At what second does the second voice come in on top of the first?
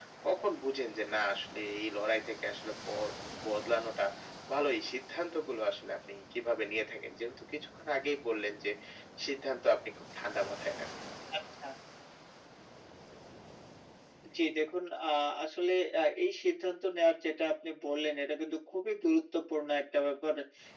none

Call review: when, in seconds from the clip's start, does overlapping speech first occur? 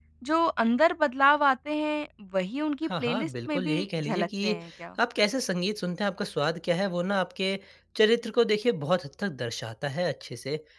3 s

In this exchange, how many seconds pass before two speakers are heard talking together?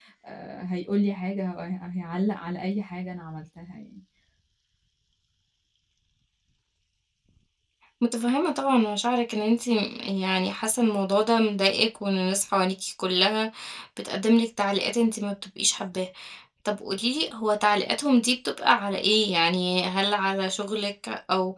none

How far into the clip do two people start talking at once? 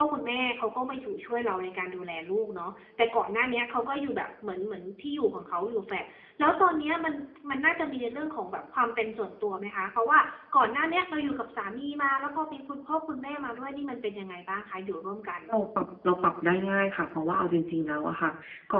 none

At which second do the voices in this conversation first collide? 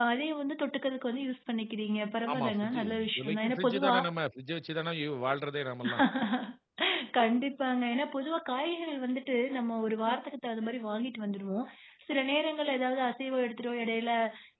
2 s

